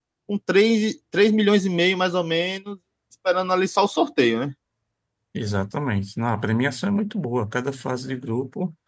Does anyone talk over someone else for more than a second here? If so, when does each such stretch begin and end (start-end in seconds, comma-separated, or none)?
none